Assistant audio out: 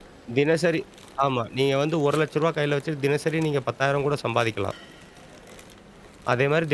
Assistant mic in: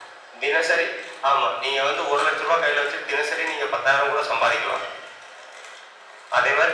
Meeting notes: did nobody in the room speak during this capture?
Yes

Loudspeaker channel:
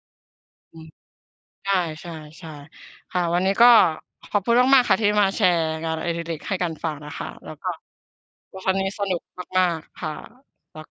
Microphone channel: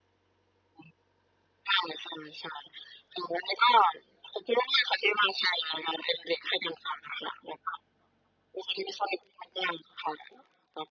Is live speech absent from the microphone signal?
Yes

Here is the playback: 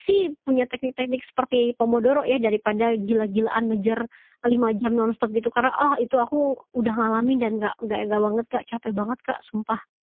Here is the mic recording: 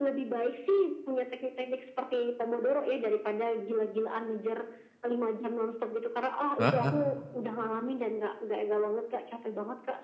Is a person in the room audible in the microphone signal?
Yes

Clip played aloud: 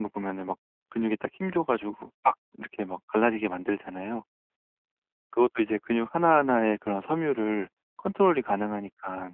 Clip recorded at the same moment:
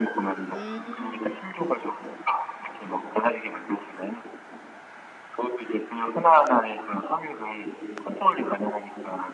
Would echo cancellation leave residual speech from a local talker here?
Yes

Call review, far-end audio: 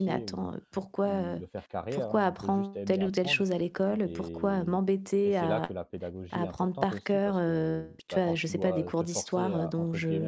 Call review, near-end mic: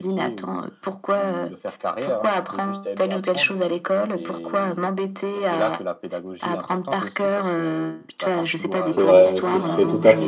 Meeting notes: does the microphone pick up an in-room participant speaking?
Yes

